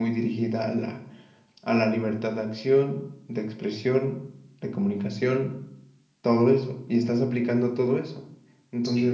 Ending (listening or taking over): listening